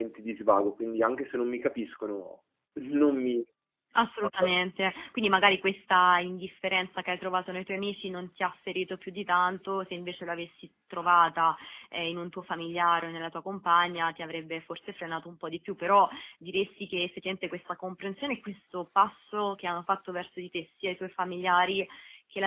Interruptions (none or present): none